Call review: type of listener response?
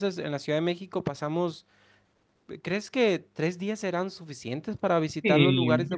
taking over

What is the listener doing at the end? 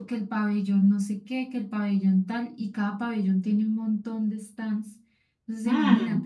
listening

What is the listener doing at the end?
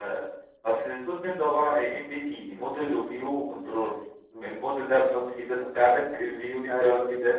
listening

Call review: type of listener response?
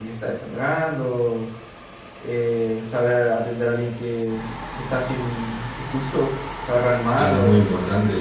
taking over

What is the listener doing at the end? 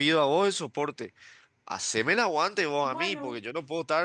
listening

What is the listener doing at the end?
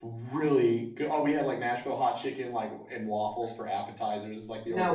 listening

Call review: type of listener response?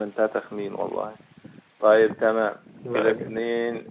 listening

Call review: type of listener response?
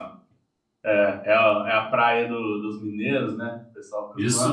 taking over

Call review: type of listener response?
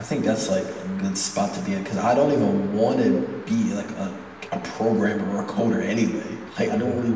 listening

